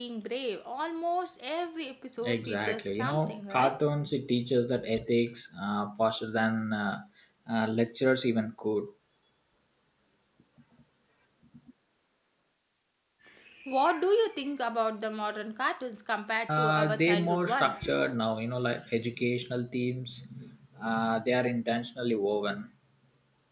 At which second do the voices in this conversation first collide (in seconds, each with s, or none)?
2.2 s